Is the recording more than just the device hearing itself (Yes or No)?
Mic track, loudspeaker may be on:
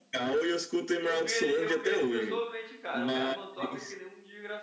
Yes